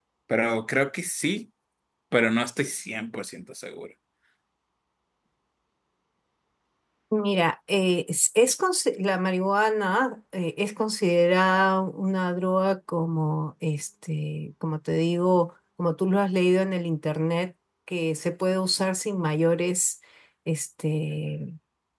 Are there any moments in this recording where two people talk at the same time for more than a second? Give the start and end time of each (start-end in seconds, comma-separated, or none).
none